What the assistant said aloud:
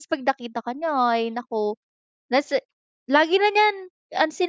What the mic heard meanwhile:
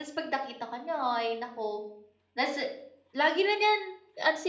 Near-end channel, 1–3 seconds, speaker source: echo only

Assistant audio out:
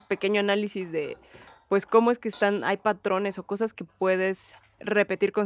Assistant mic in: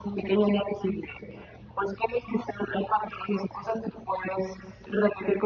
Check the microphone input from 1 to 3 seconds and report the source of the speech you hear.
echo only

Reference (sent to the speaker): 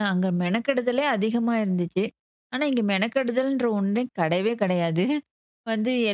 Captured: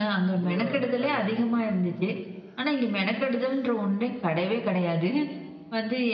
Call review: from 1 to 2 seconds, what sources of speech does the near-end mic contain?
both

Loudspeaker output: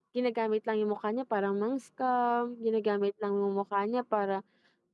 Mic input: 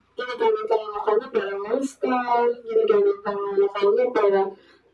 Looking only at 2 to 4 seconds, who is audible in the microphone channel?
echo only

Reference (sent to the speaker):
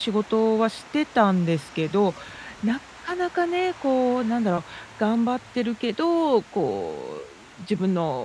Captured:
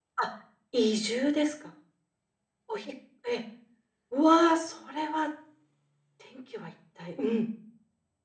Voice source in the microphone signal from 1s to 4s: user only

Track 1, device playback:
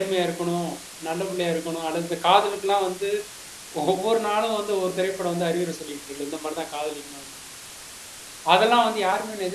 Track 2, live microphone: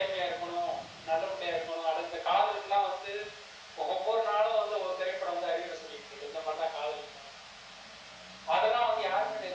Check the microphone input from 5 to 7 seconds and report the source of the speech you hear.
echo only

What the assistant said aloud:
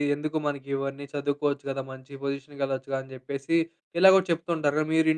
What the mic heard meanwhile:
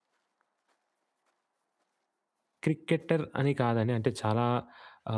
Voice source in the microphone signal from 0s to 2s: neither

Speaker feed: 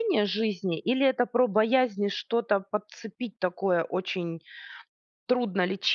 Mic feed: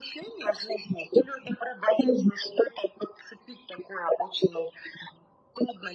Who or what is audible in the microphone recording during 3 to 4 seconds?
echo only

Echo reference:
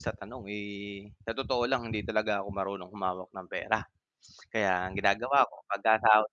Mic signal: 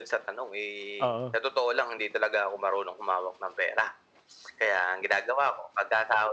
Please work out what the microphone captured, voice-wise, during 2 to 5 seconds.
echo only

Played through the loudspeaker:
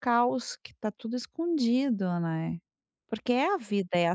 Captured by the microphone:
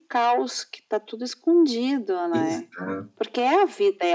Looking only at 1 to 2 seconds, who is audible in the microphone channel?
echo only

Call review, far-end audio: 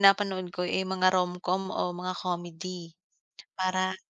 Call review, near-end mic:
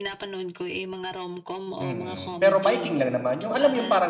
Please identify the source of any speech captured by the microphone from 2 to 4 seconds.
both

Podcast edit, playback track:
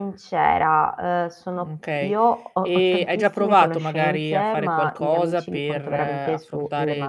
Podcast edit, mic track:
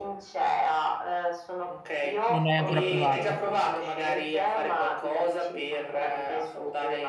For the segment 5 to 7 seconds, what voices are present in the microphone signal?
echo only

